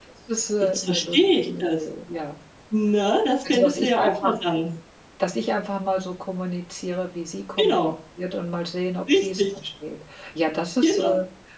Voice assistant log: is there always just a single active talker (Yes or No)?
No